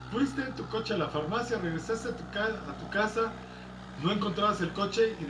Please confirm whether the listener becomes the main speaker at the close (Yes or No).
No